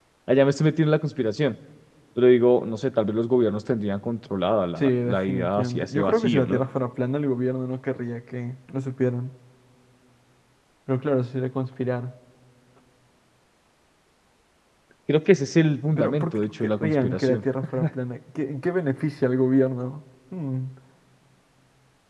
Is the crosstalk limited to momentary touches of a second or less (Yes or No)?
No